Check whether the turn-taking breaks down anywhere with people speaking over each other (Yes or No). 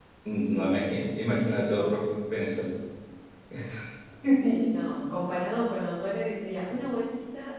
Yes